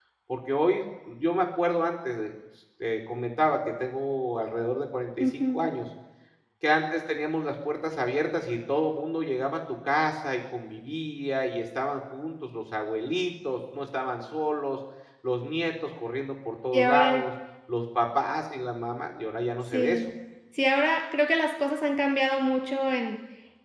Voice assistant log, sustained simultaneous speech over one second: none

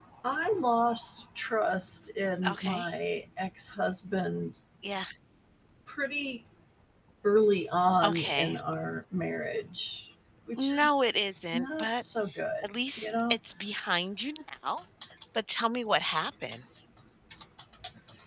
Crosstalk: present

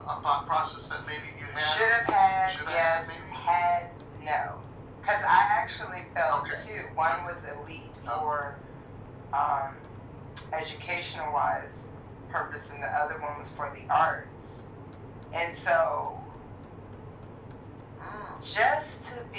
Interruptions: present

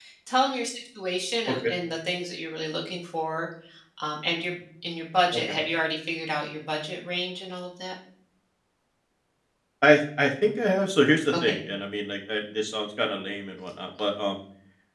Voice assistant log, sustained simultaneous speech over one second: none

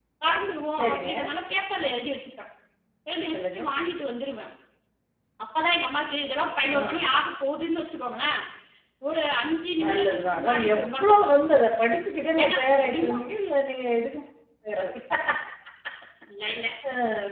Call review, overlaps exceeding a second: present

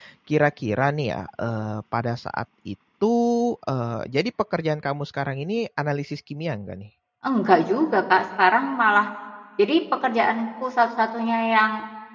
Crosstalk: none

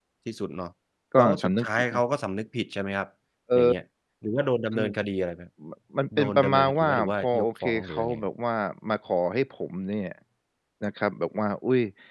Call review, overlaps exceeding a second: present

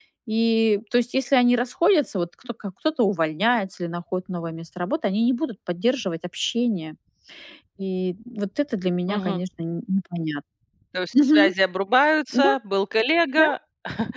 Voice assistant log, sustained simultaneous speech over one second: none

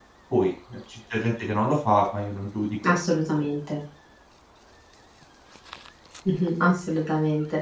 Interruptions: none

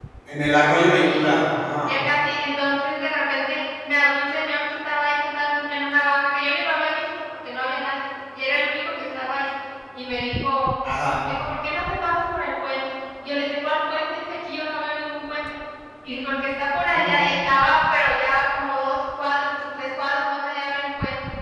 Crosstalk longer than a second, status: none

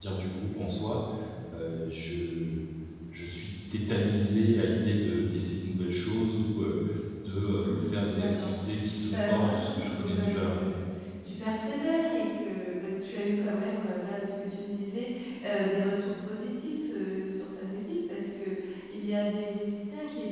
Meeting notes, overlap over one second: present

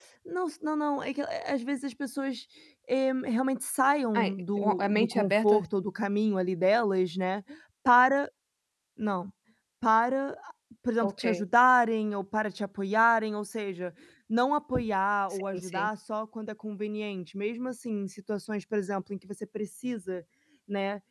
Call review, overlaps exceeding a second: present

